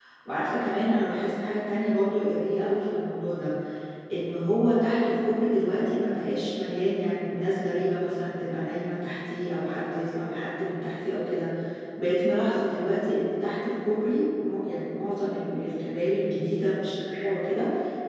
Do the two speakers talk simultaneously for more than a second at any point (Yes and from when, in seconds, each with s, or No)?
No